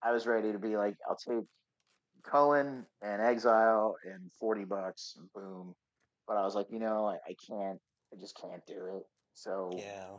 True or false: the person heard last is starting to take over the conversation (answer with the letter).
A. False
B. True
B